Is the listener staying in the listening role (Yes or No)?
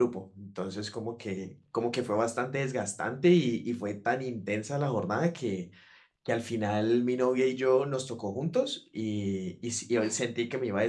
Yes